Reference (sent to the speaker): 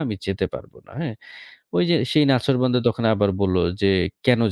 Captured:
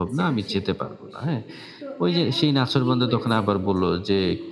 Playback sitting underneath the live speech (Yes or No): No